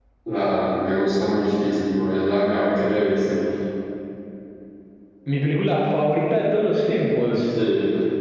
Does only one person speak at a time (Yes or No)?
Yes